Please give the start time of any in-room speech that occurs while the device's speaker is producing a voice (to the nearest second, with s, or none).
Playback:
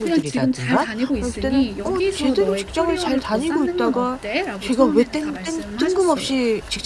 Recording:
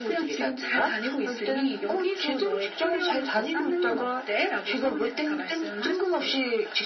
none